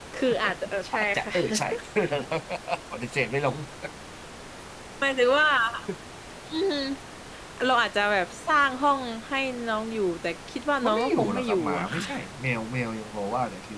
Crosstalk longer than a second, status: present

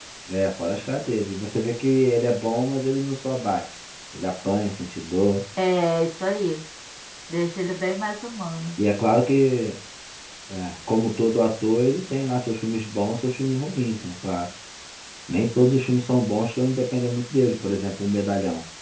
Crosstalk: none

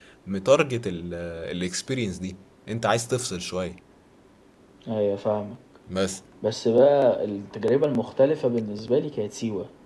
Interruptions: none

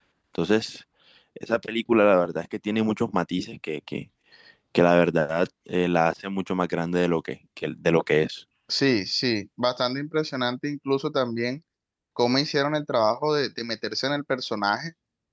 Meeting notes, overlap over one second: none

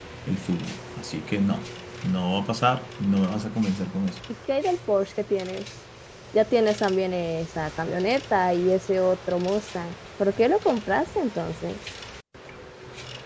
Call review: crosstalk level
none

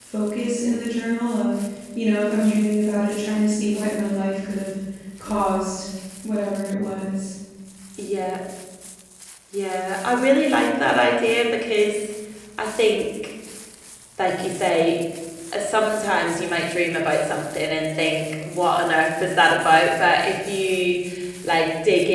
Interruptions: none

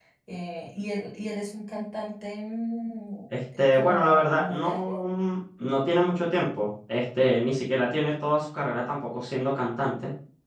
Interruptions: present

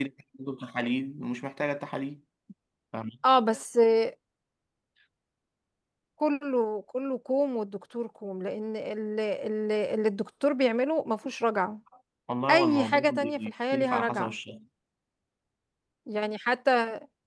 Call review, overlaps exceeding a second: present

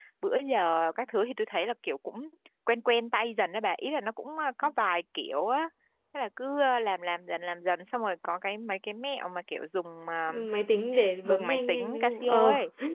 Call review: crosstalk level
present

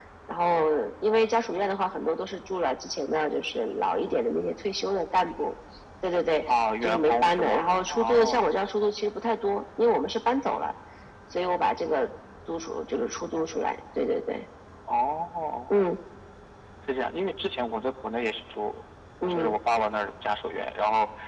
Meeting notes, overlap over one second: present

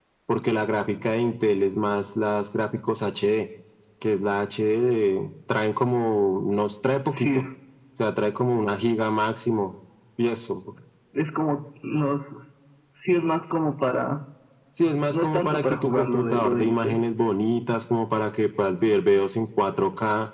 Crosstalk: present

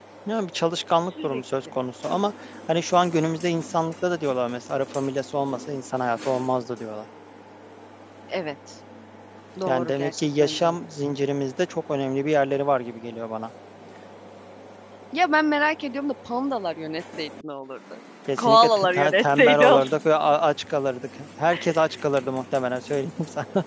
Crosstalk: present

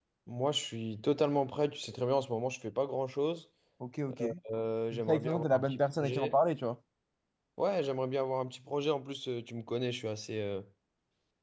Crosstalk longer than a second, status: present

